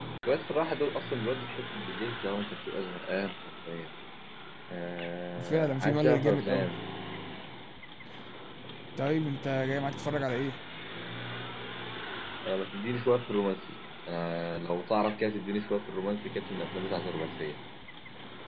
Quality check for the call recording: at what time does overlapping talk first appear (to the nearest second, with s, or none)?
6 s